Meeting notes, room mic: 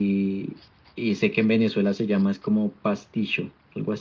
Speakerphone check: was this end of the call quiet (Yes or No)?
Yes